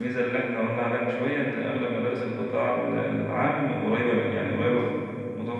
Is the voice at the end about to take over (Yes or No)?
No